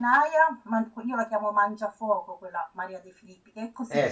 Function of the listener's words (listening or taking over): listening